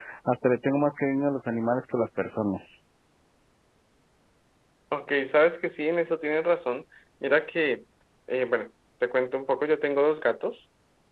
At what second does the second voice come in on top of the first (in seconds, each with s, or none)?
none